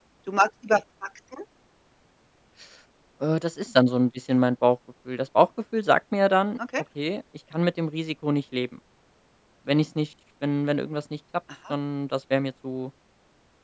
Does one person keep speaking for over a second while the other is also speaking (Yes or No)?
No